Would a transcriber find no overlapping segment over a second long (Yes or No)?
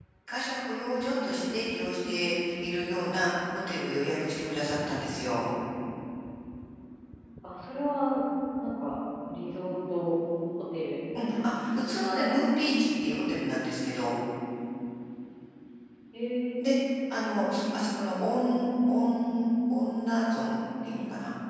Yes